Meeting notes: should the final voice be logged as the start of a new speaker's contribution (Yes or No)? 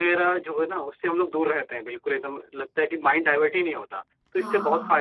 No